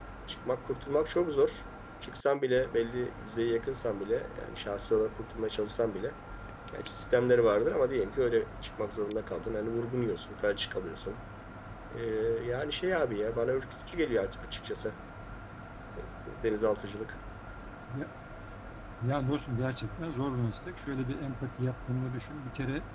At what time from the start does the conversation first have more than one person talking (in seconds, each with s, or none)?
none